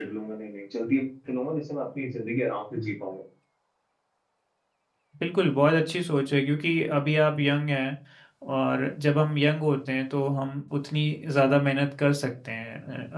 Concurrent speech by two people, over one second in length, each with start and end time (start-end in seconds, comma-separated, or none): none